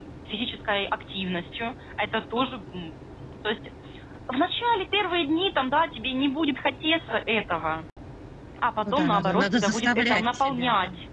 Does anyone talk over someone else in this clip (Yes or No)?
Yes